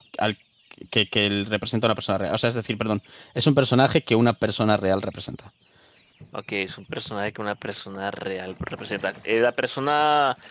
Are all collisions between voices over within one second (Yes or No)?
Yes